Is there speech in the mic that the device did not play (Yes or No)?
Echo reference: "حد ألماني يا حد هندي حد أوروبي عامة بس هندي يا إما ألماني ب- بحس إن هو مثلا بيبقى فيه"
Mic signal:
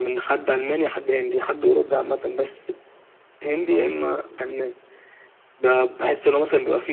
No